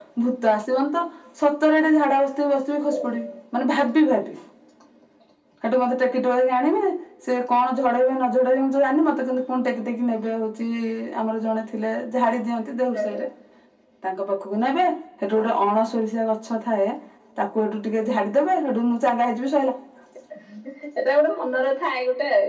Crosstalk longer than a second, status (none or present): none